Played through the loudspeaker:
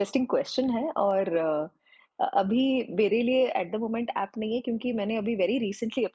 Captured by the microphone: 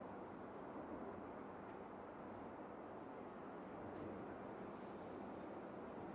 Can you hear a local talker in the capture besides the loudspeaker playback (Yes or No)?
No